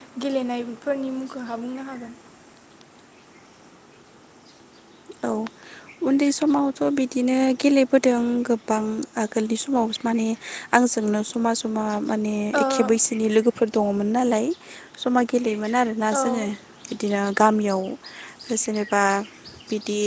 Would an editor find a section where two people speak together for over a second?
No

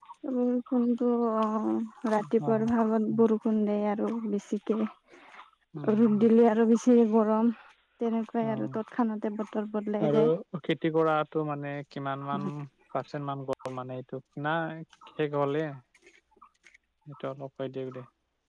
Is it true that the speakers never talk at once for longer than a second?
Yes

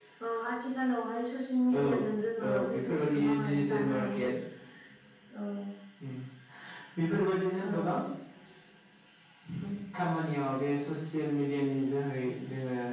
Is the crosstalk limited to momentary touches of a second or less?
No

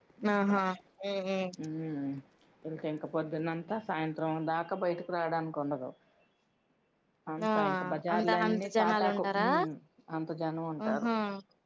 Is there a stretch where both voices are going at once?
Yes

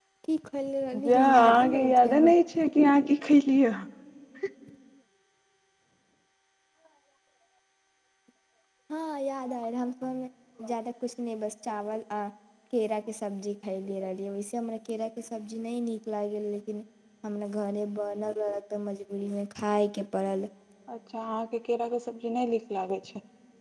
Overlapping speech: Yes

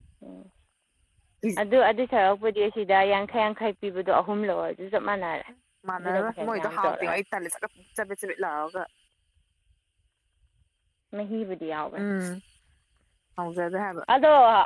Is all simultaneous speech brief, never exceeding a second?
No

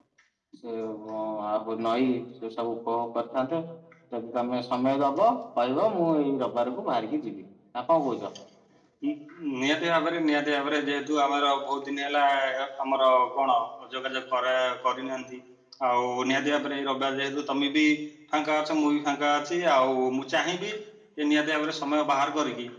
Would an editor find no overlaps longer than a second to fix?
Yes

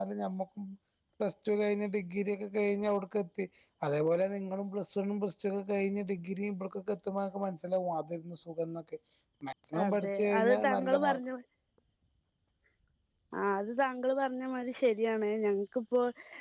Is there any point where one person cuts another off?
Yes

